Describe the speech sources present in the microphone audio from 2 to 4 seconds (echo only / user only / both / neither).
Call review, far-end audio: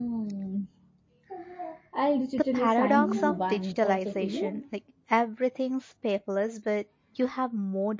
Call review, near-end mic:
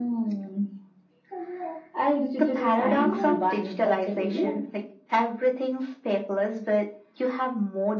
echo only